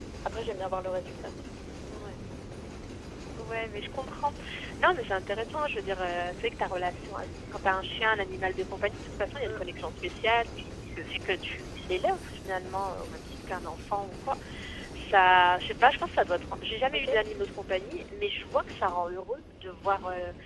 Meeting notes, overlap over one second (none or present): none